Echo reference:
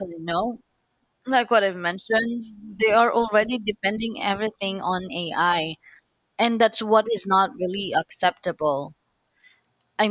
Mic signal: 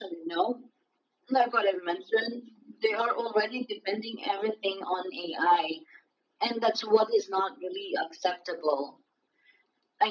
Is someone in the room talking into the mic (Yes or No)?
No